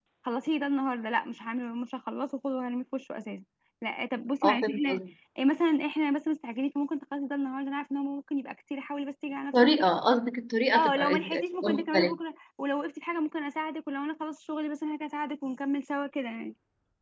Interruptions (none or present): present